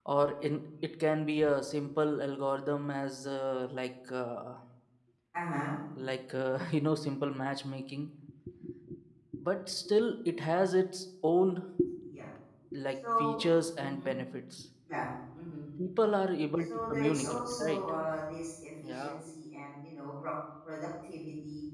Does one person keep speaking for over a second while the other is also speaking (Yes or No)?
Yes